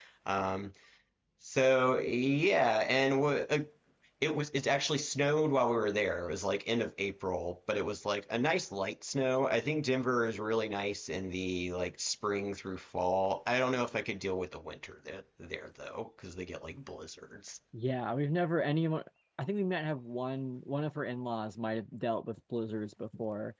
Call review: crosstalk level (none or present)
none